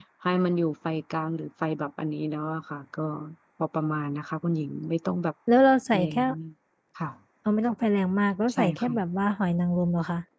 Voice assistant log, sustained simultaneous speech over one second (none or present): none